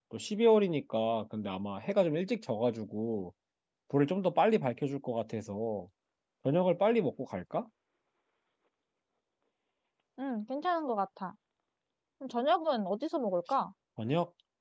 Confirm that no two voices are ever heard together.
Yes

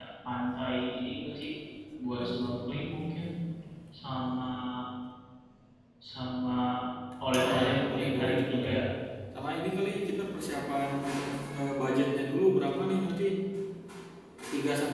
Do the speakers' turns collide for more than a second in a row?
Yes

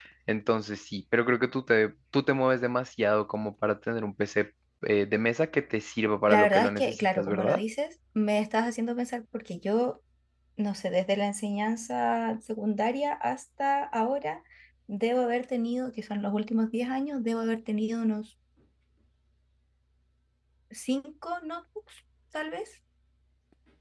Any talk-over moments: Yes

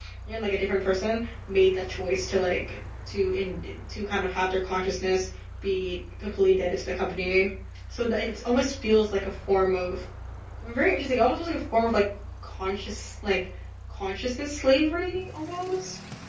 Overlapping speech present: No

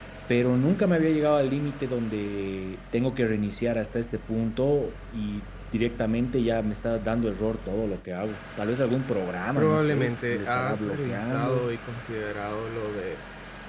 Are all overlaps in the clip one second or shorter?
No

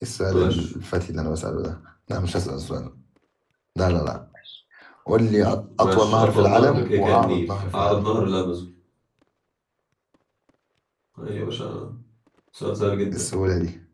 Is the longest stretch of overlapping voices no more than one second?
No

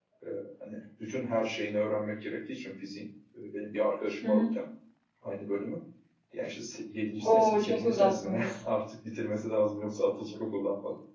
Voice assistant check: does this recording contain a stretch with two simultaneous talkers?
Yes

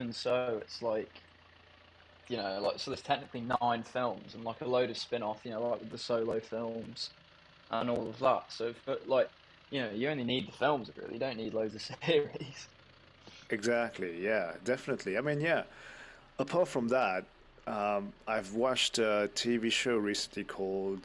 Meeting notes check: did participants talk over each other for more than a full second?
No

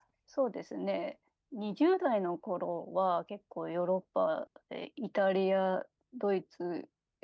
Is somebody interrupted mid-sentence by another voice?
No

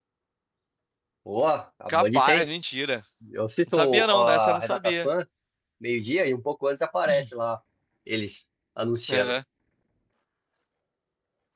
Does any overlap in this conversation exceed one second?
Yes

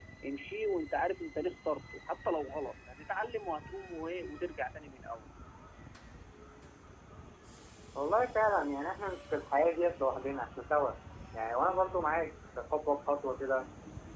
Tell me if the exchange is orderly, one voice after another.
Yes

